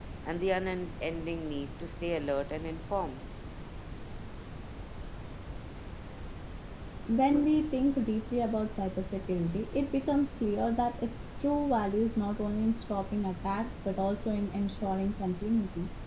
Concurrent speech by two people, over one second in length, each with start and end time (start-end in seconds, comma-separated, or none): none